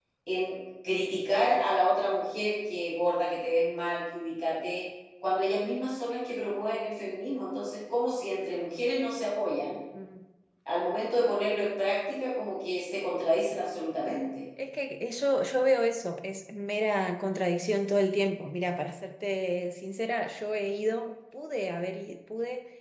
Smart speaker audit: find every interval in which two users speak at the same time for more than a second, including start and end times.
none

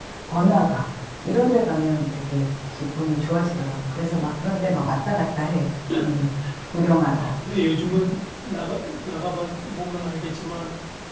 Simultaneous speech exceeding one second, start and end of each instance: none

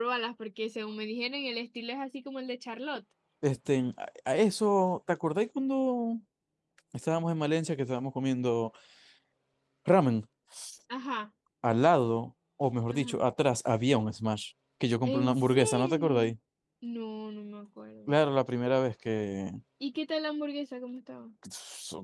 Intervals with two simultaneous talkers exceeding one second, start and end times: 15.1-16.3

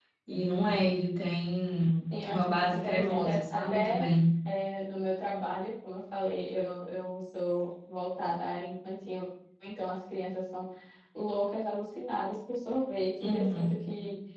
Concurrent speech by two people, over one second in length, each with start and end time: 2.2-4.0

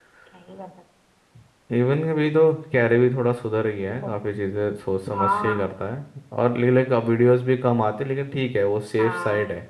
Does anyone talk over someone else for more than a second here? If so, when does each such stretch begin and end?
none

